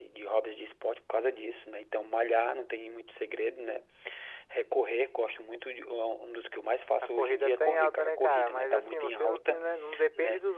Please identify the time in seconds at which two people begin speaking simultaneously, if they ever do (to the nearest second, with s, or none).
7 s